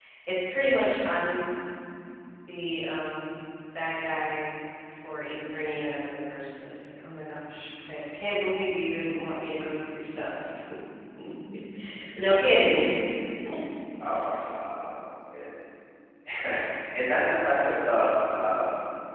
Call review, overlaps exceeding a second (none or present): none